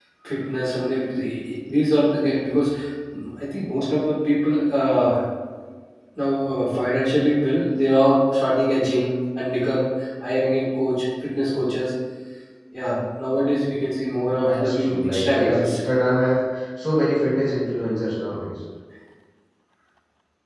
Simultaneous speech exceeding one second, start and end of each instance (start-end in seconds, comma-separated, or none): 14.3-15.8